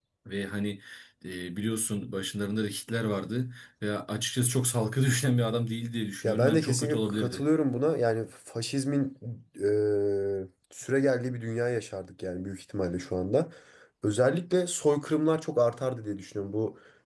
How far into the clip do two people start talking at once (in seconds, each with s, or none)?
6.2 s